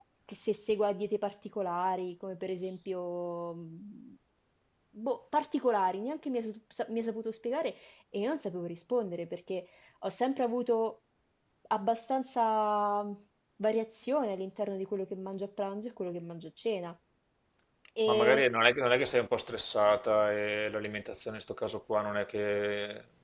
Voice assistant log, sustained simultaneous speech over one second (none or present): none